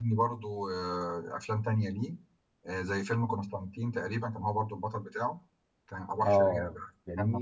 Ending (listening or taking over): taking over